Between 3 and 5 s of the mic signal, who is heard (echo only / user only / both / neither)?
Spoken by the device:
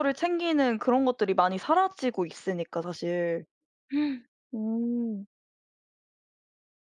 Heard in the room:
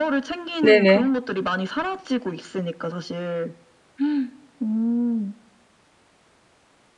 echo only